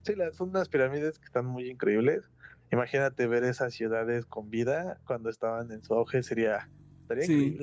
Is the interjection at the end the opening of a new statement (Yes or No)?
Yes